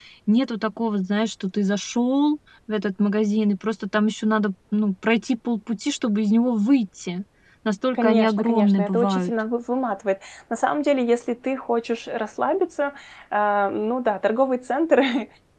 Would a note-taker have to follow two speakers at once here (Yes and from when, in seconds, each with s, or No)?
Yes, from 7.9 s